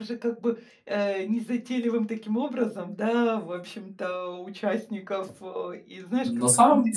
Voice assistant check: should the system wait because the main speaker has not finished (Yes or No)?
No